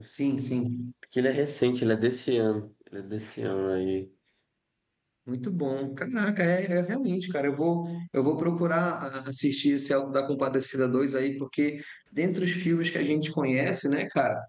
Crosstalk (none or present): none